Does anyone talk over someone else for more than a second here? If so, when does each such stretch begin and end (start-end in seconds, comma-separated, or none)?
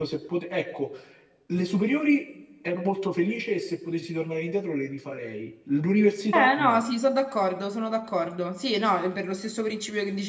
none